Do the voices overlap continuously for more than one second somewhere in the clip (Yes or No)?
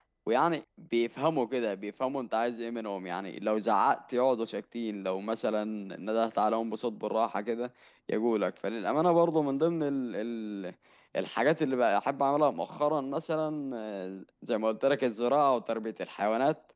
No